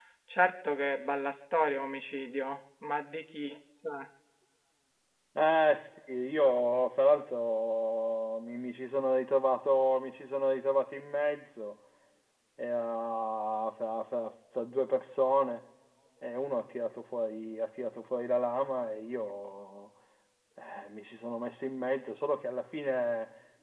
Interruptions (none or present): none